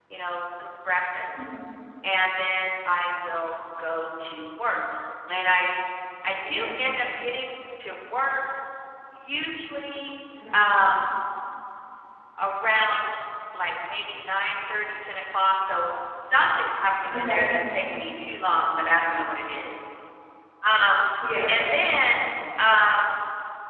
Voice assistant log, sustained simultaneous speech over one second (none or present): none